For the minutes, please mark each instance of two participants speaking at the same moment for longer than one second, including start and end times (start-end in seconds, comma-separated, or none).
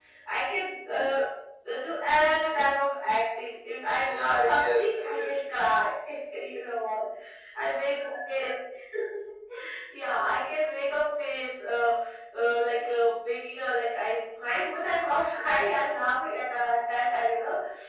4.0-5.3